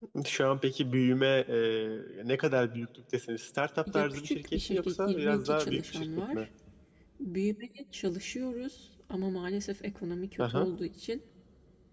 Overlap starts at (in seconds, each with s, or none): 3.9 s